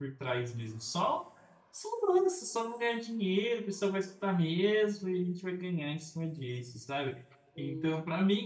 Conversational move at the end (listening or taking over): listening